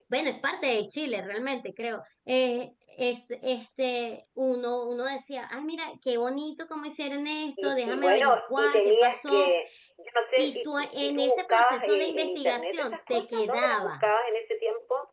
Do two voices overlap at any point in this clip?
Yes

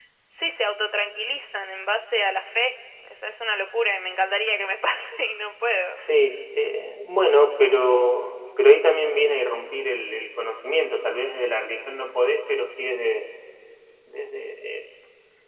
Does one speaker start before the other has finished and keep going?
No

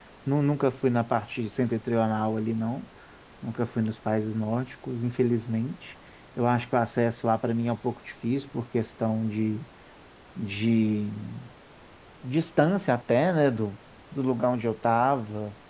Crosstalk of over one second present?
No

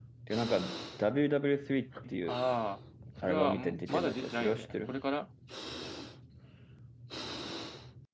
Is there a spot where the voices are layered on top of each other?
Yes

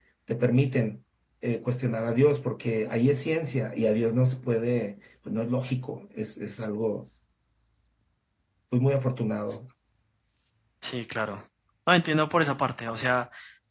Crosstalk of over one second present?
No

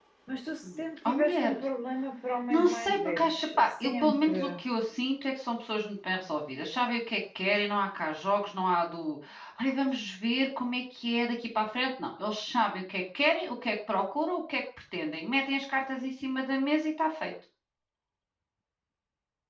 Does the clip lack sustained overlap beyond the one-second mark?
No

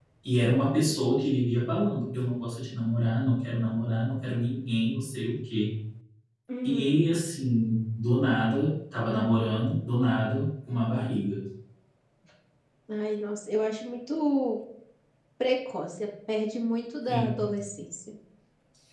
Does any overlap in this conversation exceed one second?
No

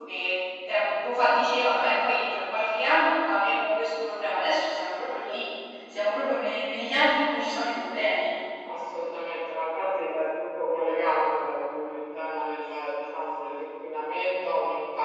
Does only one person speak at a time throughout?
Yes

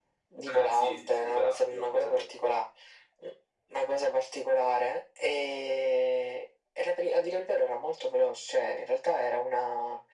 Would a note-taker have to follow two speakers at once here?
Yes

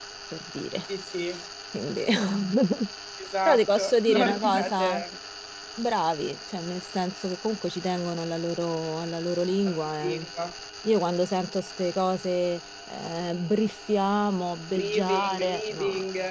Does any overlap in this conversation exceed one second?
Yes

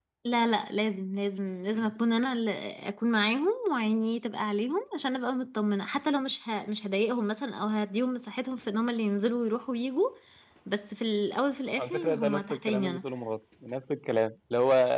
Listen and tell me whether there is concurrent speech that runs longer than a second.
Yes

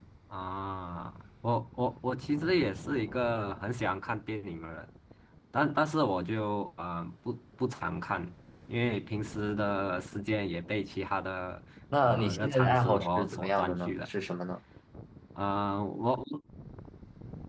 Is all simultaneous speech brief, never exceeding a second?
No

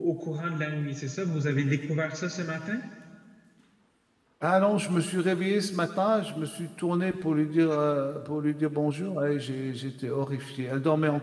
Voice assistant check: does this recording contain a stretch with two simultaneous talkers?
No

